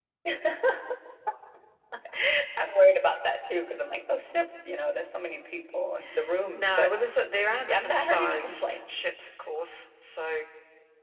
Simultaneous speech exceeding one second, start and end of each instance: 7.7-9.0

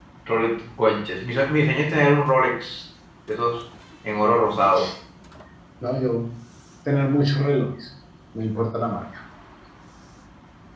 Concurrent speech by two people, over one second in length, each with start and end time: none

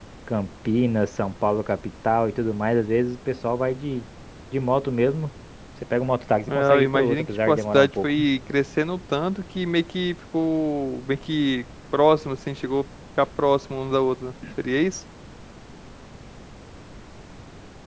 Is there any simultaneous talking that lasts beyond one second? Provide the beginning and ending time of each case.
6.5-8.3

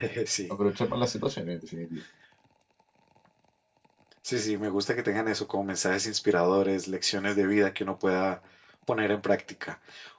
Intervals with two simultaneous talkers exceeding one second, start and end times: none

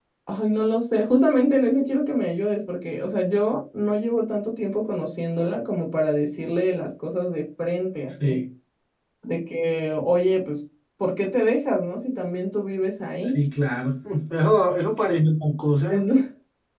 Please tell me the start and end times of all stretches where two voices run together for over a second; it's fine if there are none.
none

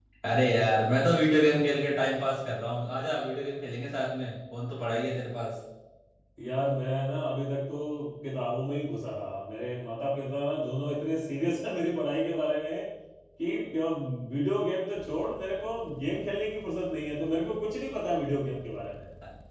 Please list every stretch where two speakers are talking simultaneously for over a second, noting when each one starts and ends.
none

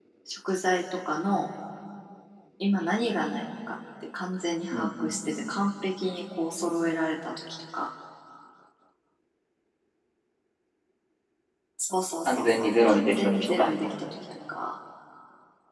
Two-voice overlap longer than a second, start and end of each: 12.2-13.7

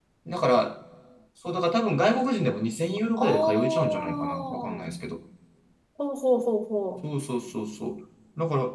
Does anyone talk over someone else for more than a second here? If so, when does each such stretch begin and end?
3.2-4.8

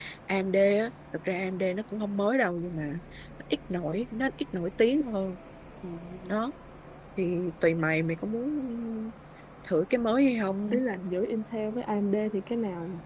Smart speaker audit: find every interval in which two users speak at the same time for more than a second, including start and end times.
none

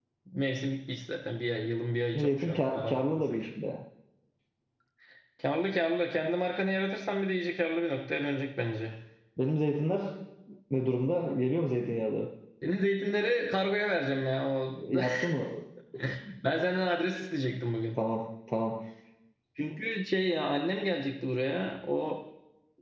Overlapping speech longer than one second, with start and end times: 2.2-3.4

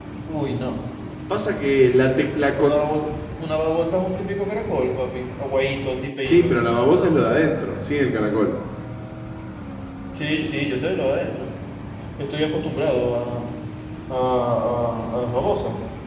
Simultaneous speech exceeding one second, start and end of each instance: none

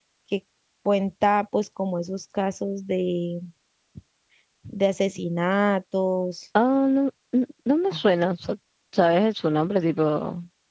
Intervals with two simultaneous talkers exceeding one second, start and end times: none

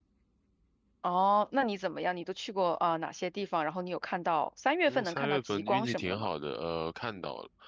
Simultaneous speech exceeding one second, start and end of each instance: 4.9-6.3

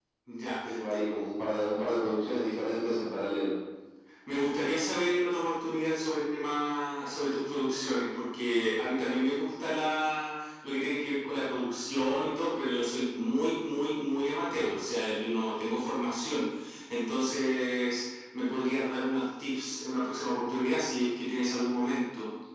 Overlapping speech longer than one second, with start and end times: none

